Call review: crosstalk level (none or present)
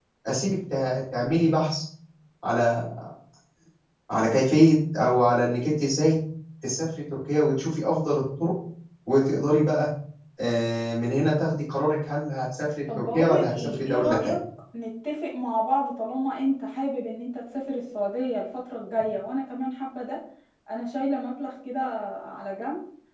present